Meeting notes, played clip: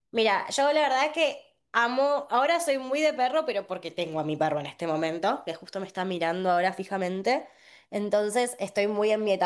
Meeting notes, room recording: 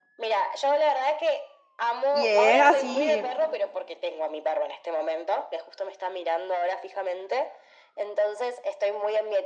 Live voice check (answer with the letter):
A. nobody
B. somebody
B